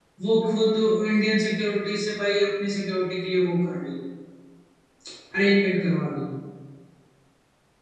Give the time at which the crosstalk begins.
none

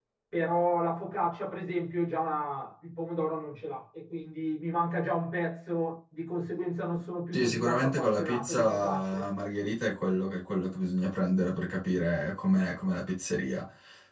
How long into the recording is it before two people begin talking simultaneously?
7.3 s

